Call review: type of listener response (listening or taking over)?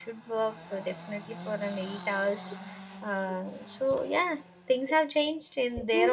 taking over